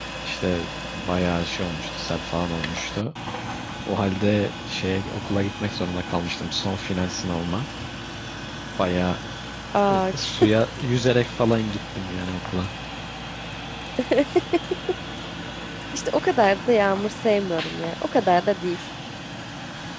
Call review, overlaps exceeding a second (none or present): none